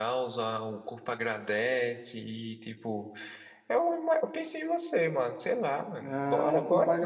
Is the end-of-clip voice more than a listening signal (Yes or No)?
Yes